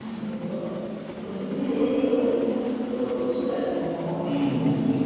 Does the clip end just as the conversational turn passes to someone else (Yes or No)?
Yes